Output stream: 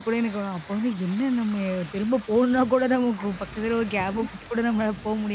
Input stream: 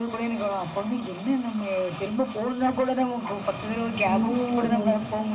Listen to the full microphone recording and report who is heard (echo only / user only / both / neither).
both